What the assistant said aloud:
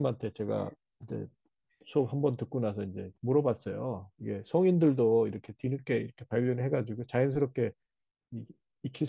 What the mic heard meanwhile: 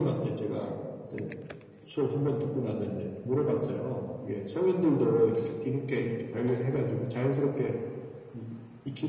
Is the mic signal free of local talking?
Yes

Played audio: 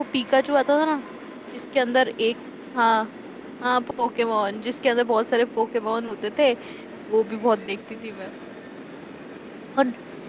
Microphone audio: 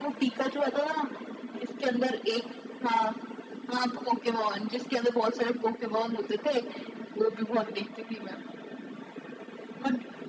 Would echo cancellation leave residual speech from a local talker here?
No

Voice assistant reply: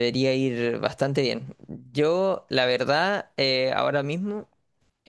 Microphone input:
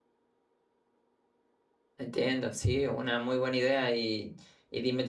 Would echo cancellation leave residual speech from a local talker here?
Yes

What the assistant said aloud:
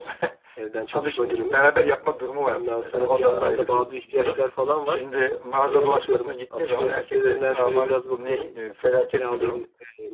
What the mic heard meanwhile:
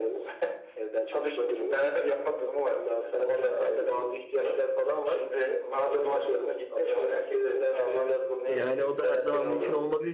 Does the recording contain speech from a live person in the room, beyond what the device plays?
Yes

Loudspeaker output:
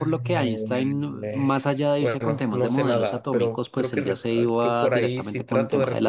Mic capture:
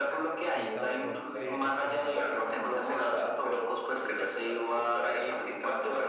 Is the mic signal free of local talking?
No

